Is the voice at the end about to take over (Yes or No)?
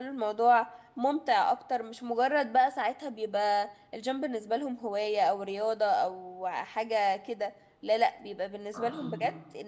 No